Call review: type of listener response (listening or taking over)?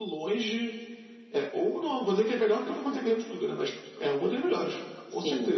taking over